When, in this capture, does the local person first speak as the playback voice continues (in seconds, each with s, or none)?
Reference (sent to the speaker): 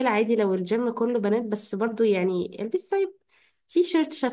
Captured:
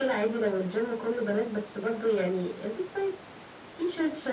none